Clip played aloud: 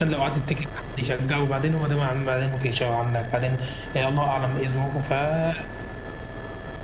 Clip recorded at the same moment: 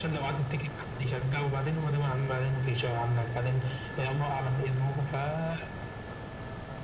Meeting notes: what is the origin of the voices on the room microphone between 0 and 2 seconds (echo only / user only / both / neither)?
echo only